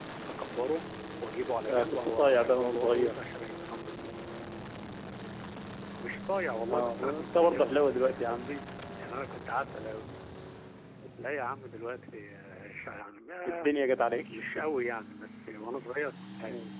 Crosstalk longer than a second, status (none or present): present